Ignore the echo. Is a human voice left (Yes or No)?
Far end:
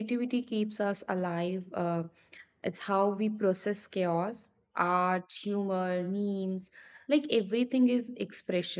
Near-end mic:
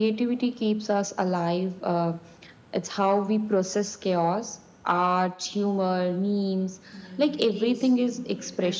Yes